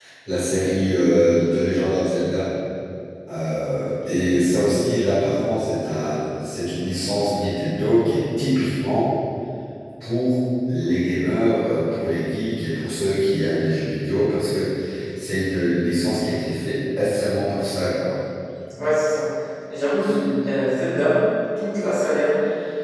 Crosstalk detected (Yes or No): No